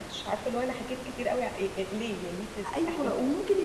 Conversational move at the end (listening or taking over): taking over